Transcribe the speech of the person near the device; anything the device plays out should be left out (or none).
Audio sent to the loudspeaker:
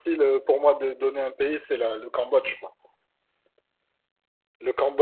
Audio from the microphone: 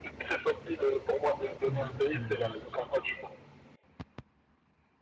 Exactement, non, c'est sûr.